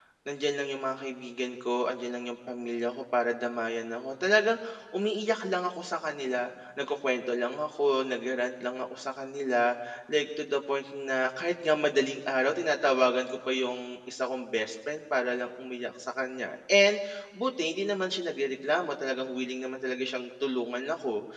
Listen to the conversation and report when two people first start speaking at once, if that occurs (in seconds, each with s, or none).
none